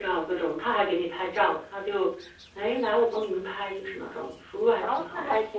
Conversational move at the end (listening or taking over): taking over